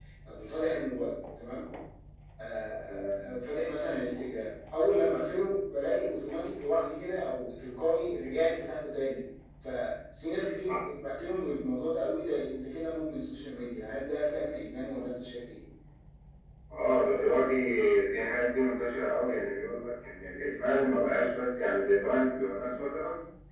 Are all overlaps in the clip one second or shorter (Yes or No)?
Yes